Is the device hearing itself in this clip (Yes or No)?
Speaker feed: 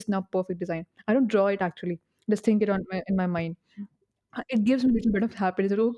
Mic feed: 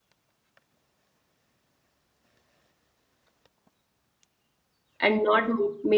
No